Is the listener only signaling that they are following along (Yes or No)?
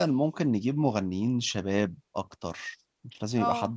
Yes